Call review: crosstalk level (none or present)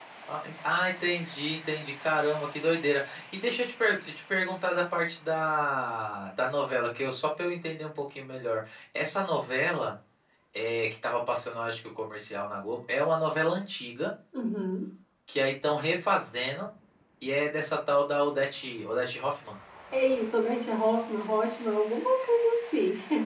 none